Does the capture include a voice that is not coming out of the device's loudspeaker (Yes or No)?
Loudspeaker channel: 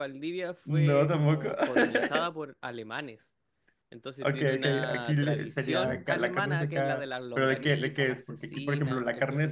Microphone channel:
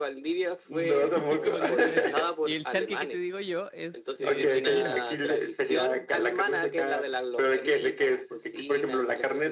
Yes